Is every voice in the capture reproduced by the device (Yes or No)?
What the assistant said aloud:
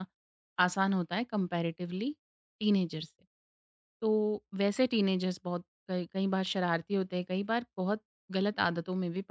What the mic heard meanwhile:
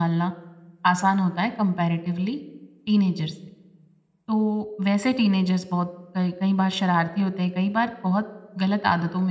Yes